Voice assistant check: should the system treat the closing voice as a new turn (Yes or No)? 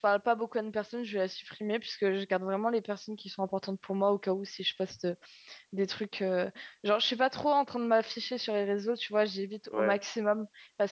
No